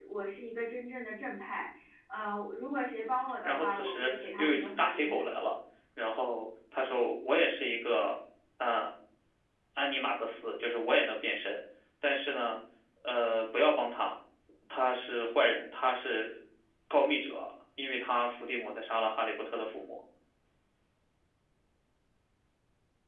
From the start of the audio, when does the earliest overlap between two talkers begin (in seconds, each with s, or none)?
3.4 s